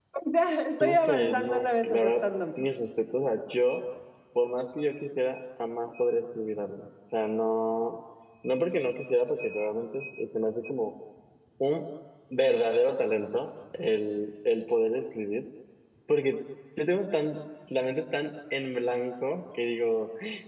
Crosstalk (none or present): present